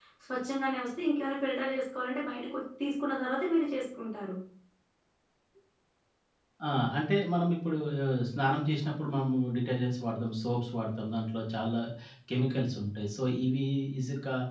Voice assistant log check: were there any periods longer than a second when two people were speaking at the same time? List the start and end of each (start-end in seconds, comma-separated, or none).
none